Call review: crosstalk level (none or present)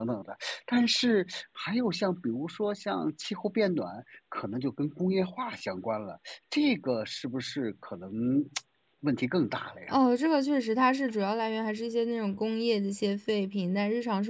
none